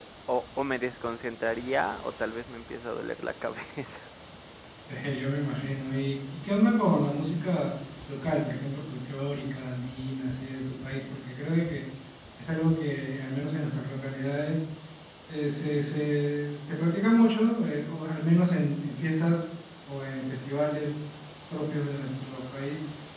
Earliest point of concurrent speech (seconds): none

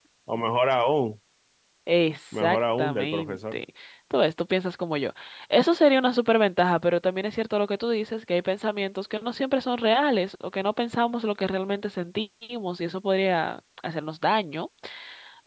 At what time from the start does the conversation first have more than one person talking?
2.4 s

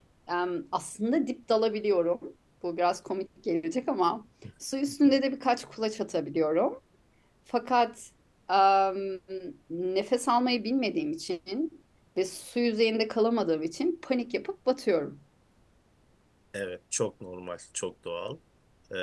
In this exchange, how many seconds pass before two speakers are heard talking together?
none

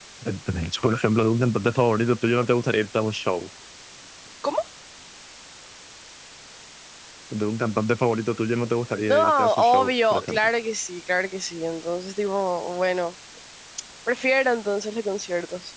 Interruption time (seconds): 9.1 s

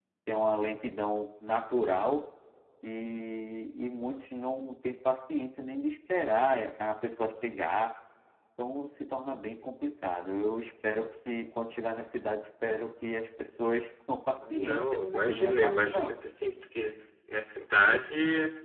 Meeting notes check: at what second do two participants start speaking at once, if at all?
14.4 s

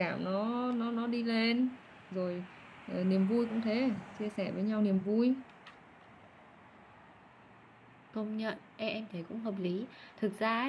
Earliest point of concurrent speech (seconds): none

